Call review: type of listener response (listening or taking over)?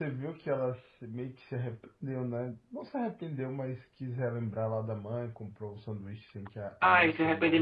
taking over